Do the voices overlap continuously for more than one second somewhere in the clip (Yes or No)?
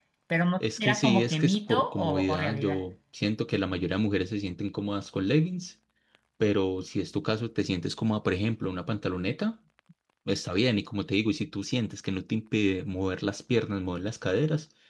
Yes